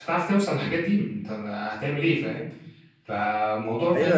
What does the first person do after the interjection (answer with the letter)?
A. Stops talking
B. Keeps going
A